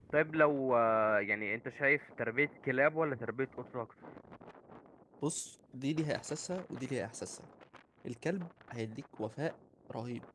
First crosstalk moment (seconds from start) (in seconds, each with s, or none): none